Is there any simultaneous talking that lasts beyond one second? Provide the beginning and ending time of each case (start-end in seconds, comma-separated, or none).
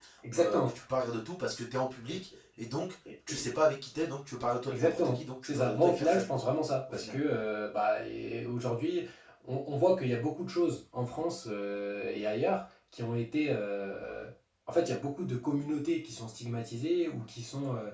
4.7-6.3